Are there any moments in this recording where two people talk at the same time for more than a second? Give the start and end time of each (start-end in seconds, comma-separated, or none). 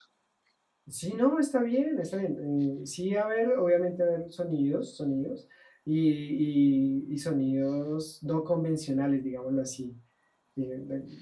none